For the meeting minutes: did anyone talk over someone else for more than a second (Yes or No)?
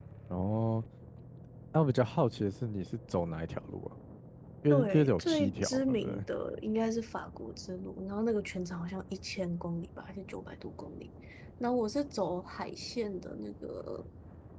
Yes